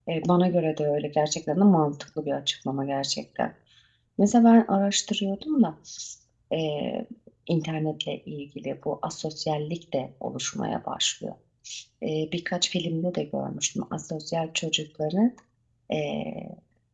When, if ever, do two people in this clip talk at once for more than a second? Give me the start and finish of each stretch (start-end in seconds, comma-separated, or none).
none